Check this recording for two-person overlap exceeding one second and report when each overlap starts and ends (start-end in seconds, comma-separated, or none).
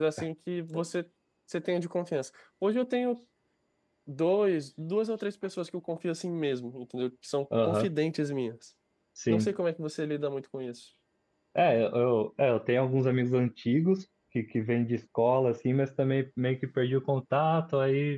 none